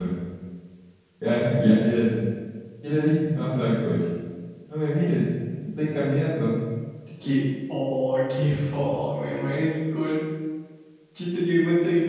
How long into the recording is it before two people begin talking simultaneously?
none

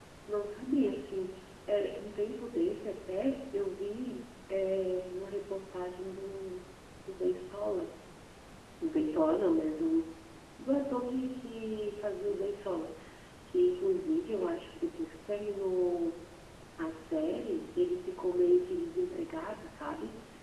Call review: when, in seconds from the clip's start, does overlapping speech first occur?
none

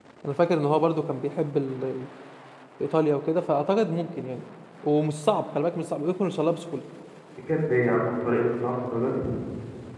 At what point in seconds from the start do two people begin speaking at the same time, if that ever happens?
none

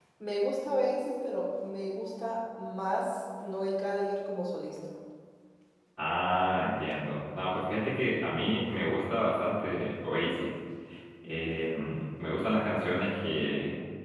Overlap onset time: none

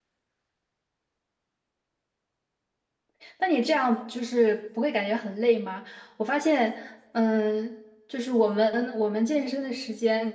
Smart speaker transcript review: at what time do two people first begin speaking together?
none

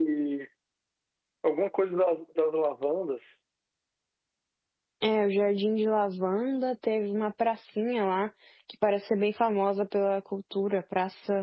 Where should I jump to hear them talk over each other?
none

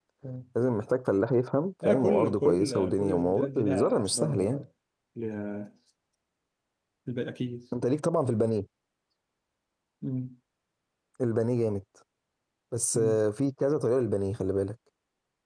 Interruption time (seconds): 1.8 s

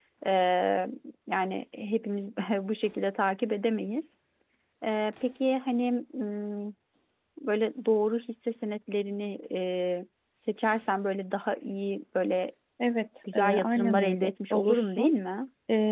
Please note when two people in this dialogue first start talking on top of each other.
13.3 s

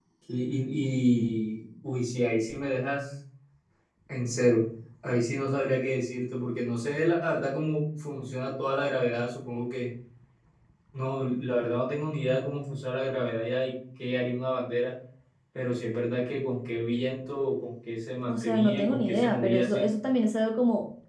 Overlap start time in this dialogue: 18.3 s

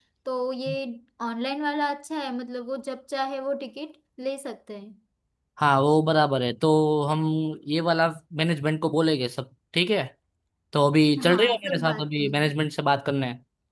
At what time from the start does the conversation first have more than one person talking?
11.3 s

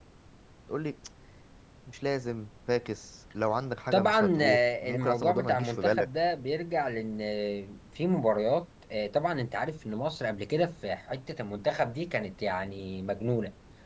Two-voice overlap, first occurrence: 3.9 s

